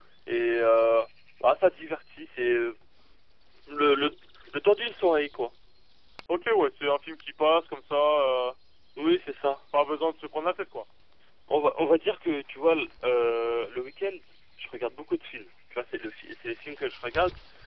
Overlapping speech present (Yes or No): No